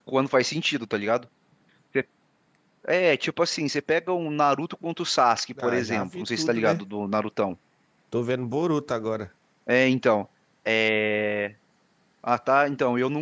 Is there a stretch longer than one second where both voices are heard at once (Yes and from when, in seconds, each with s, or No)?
Yes, from 5.6 s